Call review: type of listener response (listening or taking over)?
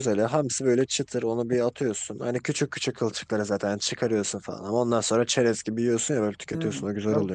taking over